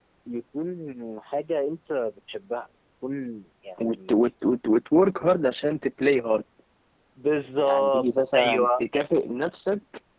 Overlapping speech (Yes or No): Yes